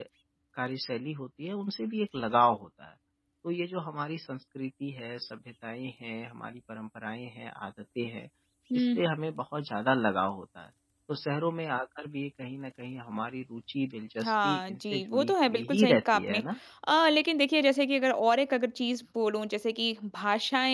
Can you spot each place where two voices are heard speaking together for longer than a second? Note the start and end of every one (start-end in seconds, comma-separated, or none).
14.2-16.4